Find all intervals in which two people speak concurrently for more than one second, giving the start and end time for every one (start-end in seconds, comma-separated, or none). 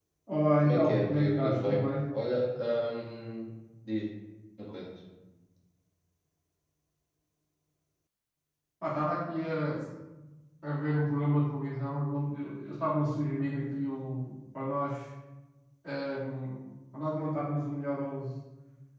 0.6-1.9